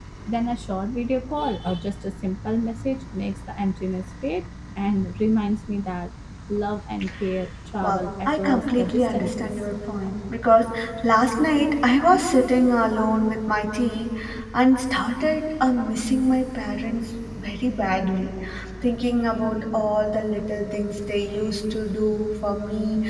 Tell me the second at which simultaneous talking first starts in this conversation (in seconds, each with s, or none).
7.8 s